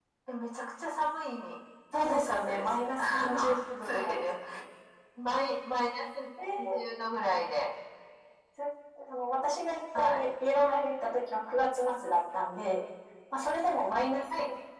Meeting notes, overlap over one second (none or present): present